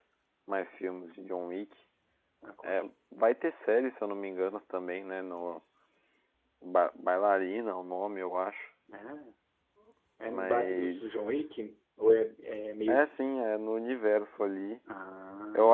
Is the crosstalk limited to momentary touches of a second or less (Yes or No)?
No